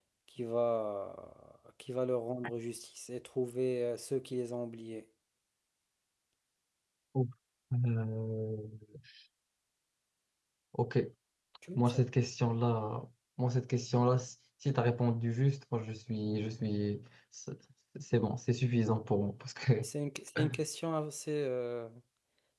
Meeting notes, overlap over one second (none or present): none